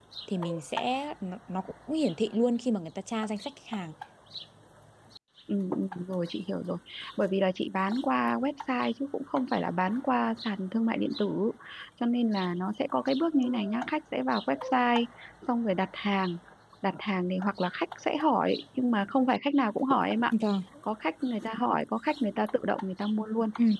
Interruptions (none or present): none